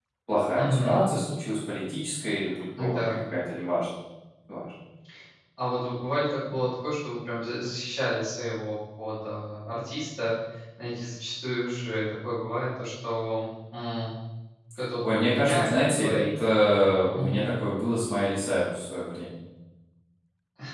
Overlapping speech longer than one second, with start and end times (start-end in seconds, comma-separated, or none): 15.0-16.2